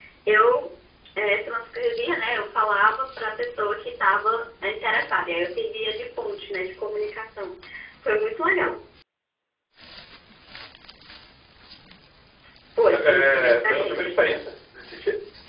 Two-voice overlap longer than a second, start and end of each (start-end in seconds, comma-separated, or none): 12.9-14.2